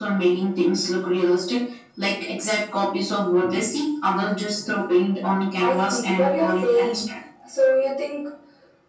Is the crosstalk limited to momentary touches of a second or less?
No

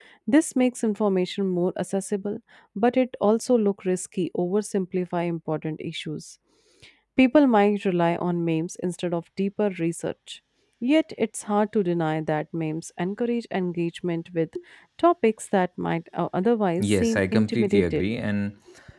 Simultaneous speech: Yes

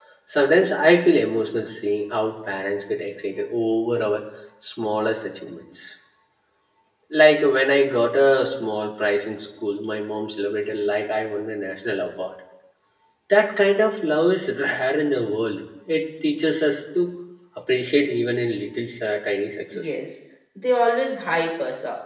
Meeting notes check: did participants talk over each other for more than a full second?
No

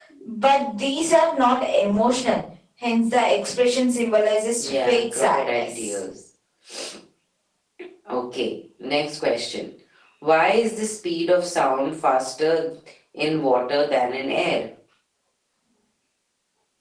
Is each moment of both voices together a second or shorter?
No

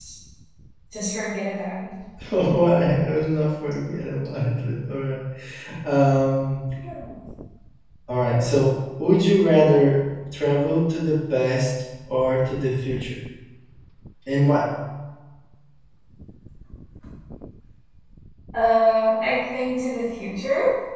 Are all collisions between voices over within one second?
Yes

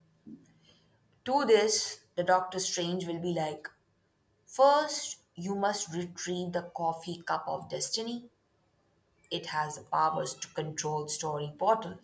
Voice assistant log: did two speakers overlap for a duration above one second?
No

